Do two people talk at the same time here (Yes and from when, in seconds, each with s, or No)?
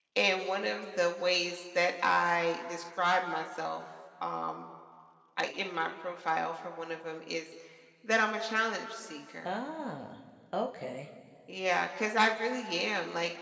No